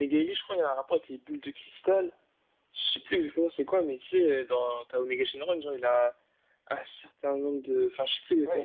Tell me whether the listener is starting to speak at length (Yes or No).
Yes